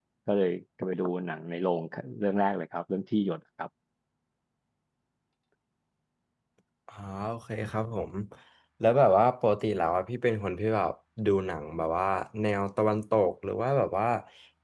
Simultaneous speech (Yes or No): No